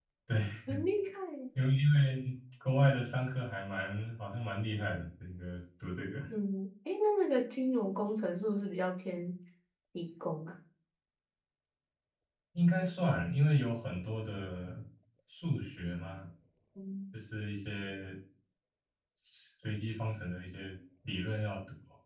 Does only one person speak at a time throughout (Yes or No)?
Yes